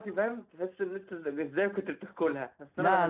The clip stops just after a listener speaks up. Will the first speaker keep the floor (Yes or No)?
No